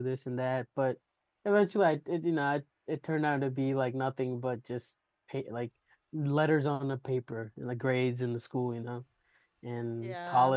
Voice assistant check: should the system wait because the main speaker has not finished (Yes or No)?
Yes